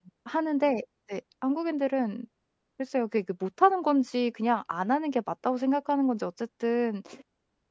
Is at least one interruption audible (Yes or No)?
No